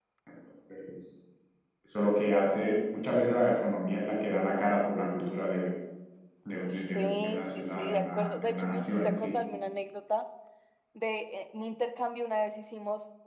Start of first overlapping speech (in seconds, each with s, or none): 6.7 s